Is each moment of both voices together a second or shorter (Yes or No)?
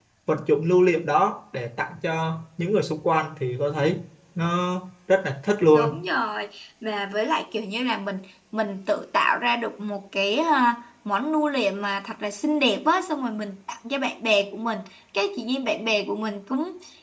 Yes